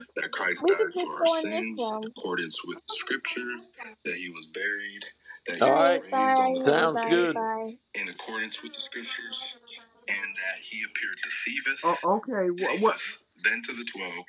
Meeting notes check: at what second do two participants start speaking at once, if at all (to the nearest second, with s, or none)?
1 s